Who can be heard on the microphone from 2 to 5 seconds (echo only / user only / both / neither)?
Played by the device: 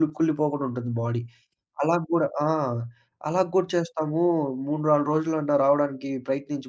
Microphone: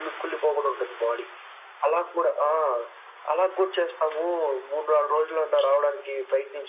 echo only